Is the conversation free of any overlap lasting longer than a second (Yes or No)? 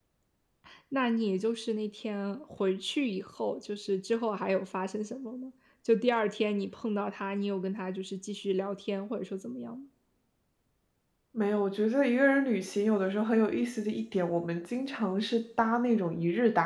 Yes